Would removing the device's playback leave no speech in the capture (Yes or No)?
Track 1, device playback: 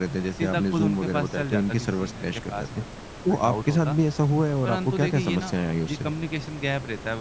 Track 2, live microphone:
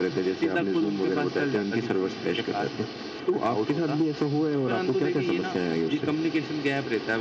Yes